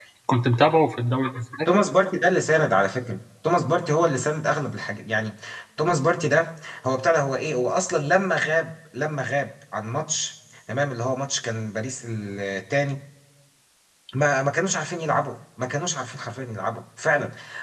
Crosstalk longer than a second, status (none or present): none